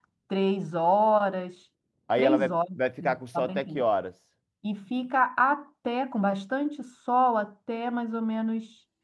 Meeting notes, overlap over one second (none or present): present